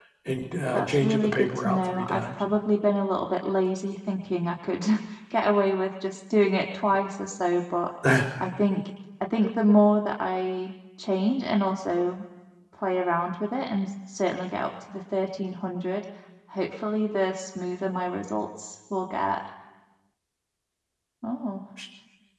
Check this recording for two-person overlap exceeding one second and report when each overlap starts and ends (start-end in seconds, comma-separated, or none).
0.7-2.4